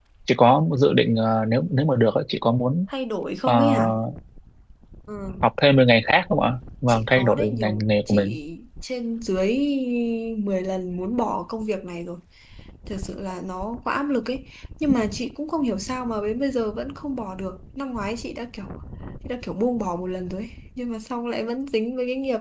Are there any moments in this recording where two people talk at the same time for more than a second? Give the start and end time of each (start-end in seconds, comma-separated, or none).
6.9-8.4